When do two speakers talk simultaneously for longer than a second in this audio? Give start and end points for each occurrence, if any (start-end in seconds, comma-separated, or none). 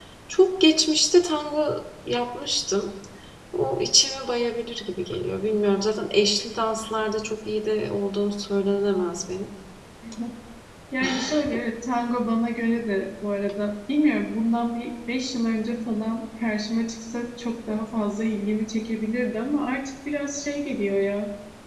none